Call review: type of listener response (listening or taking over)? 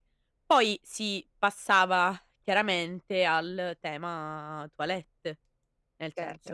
listening